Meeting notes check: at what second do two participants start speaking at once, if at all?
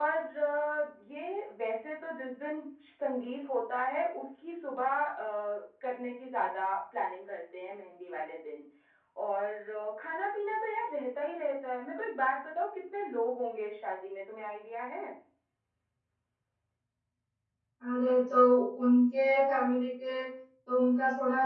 none

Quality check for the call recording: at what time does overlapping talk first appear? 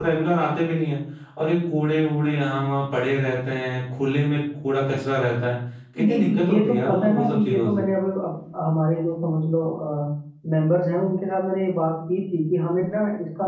6.0 s

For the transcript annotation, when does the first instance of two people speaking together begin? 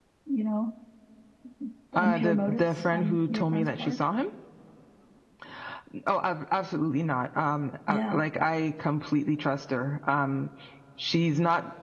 2.0 s

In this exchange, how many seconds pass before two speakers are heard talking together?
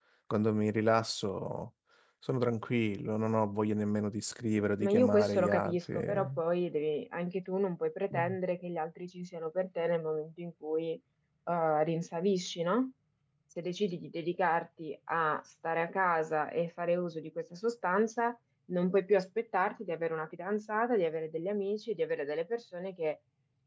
4.8 s

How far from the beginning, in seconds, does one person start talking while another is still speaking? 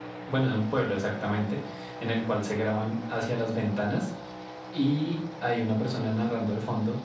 none

